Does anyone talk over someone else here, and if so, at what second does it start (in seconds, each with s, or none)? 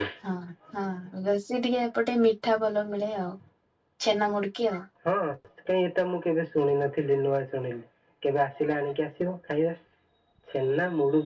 none